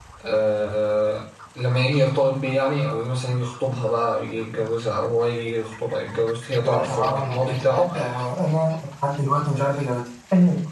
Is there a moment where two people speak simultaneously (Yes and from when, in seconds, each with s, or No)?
Yes, from 6.6 s